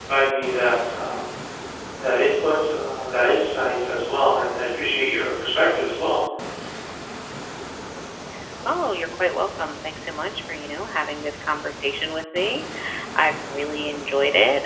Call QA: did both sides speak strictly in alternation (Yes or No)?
Yes